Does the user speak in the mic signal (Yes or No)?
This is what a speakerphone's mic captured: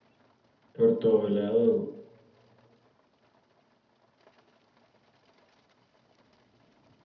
Yes